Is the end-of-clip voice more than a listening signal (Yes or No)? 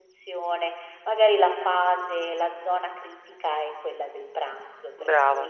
No